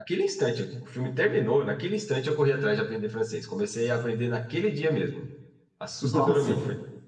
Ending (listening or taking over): listening